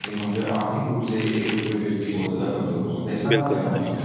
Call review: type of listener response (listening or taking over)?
taking over